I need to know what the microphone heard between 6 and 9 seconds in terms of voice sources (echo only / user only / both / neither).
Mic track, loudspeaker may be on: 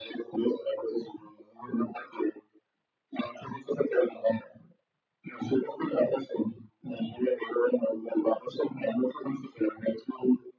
echo only